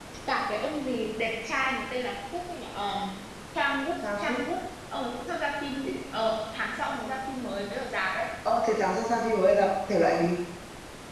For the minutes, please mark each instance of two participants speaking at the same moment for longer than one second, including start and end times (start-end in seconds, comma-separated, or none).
none